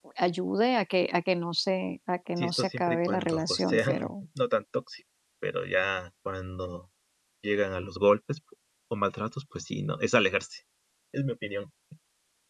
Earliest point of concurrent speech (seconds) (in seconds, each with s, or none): 2.4 s